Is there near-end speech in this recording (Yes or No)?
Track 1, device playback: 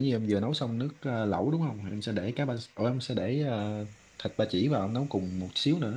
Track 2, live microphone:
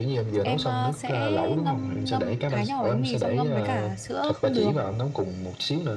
Yes